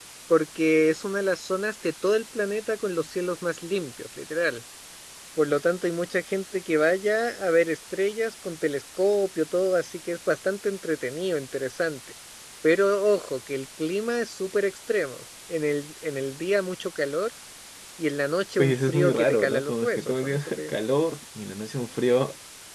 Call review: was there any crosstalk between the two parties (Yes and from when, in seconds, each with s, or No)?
Yes, from 18.6 s